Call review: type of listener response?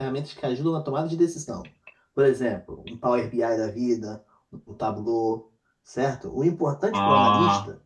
listening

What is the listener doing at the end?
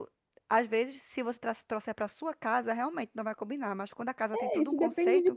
taking over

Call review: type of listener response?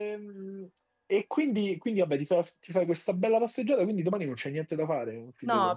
taking over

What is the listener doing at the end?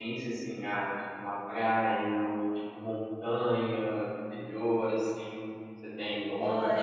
taking over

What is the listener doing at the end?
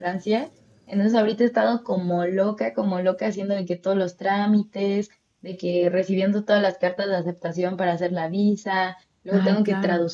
listening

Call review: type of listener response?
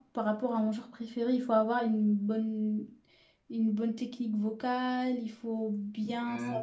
listening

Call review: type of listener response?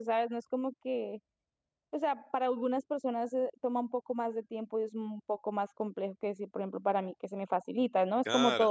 listening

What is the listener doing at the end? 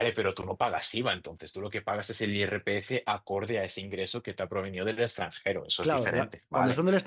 taking over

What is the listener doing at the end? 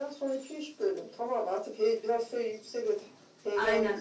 listening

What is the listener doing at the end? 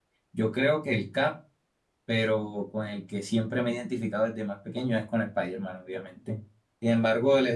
listening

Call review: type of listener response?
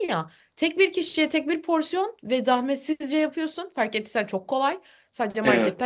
listening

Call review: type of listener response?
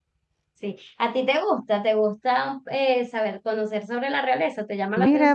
taking over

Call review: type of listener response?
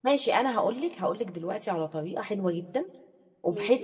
listening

